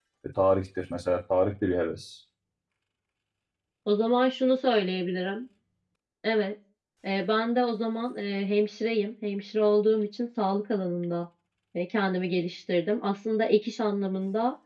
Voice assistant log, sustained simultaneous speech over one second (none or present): none